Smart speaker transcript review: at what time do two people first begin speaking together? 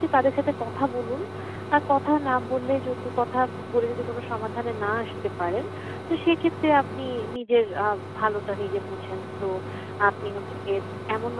none

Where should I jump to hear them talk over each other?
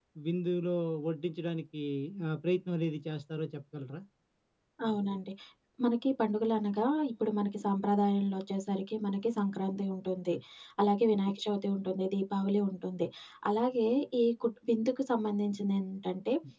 none

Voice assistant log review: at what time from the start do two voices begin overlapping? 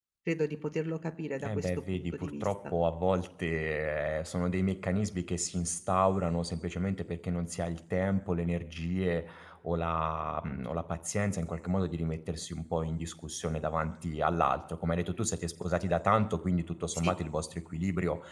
1 s

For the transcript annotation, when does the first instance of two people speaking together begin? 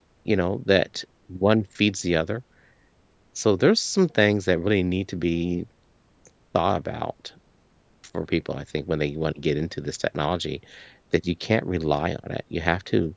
none

